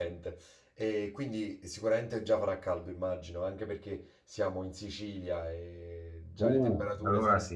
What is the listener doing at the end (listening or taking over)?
taking over